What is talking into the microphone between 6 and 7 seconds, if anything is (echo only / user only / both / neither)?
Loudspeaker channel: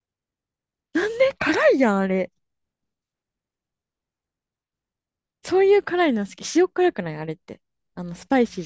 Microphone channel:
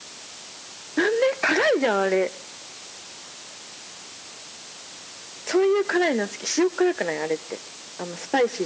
echo only